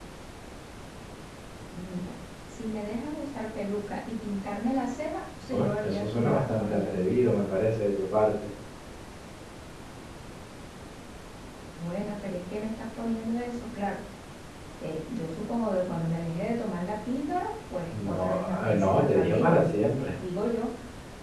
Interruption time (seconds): 5.5 s

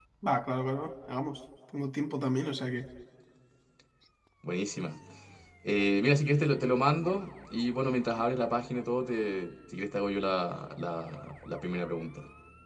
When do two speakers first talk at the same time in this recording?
none

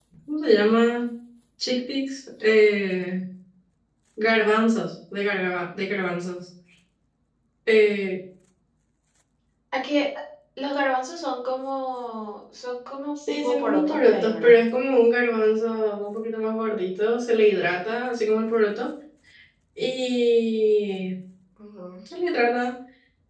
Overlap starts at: 13.2 s

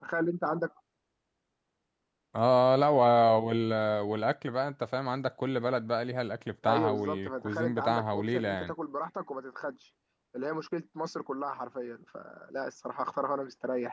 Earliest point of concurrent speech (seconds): 6.6 s

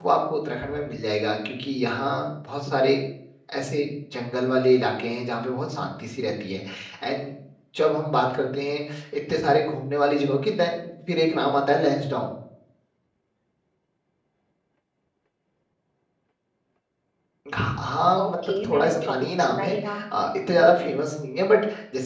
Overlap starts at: 18.2 s

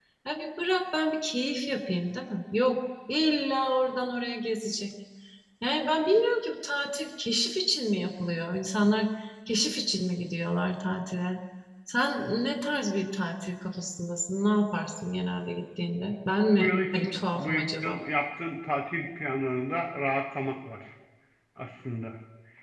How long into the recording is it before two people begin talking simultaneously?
16.6 s

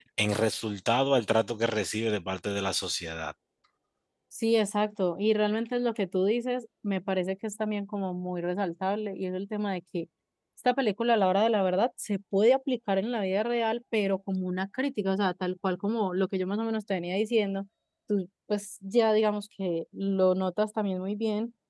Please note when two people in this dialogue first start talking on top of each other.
none

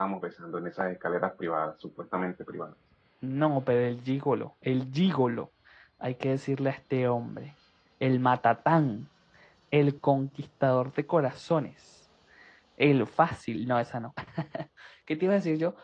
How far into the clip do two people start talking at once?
none

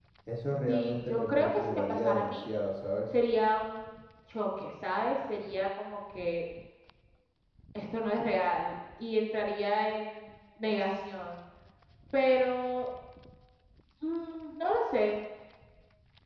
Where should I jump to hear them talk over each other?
0.7 s

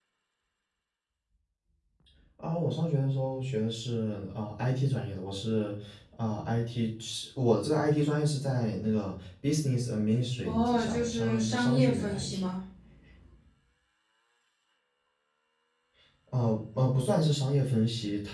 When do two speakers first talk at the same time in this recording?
10.4 s

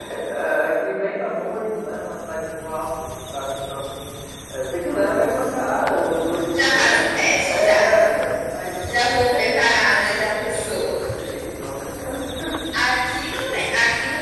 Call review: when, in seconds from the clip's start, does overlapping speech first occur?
6.5 s

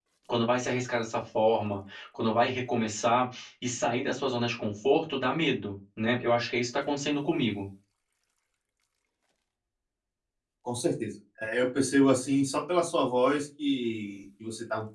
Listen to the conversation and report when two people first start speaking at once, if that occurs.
none

